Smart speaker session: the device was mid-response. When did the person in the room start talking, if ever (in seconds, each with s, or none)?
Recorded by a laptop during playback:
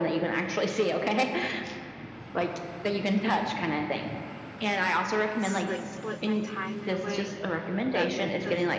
5.4 s